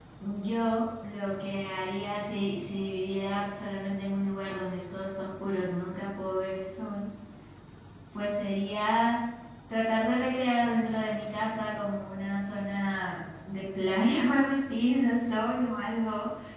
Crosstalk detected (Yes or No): No